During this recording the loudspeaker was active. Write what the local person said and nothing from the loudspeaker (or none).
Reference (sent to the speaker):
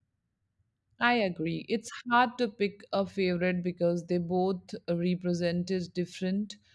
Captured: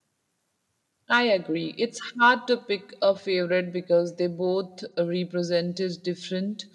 none